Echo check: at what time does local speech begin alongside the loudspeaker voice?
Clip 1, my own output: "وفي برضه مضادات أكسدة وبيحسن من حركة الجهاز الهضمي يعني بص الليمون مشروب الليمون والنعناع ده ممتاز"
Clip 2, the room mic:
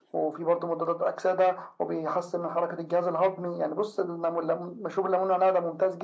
none

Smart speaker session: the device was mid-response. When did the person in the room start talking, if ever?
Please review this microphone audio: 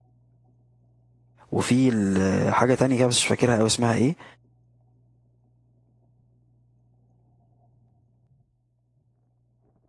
1.5 s

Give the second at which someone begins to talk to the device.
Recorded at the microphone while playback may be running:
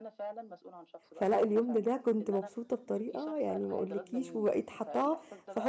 1.1 s

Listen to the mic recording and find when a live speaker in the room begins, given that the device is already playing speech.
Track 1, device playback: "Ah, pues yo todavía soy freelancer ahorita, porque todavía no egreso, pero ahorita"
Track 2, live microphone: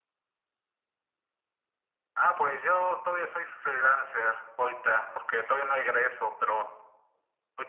none

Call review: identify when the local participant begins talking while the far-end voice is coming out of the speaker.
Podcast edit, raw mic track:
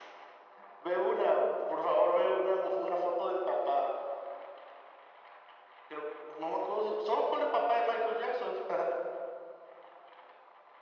none

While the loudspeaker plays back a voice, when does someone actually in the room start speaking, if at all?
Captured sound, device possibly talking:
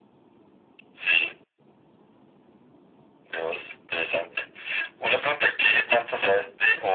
none

